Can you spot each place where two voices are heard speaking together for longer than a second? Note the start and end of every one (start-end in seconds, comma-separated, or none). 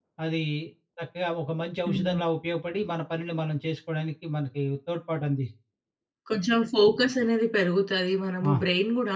none